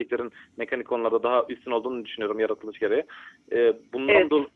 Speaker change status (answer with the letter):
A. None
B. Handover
A